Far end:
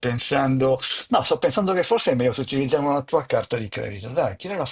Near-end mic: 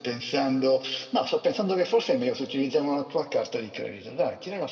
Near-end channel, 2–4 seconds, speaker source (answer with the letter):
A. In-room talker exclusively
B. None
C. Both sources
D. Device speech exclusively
D